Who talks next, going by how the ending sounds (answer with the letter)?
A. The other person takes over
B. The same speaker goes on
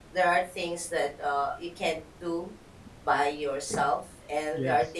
B